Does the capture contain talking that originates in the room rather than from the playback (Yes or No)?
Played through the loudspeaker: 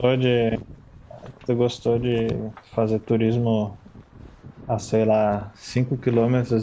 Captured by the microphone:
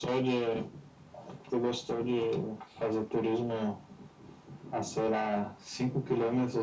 No